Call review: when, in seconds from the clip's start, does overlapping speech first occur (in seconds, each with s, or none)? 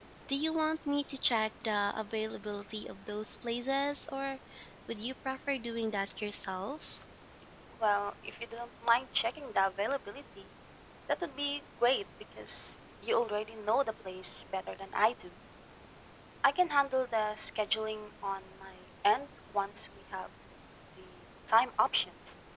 none